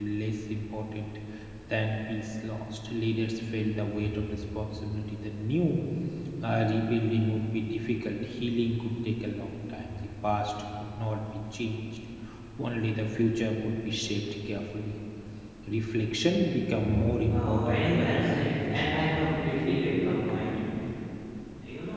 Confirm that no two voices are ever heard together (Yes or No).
No